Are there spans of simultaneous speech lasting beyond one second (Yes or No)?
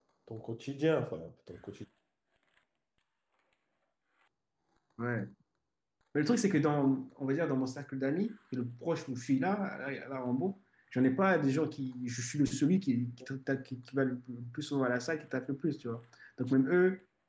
No